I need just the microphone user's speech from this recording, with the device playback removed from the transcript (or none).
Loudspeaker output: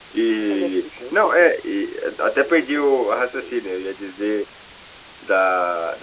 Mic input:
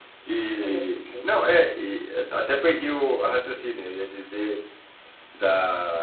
none